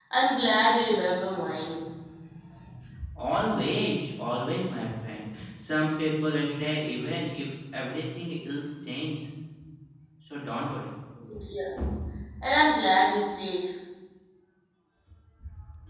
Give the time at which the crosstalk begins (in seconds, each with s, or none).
none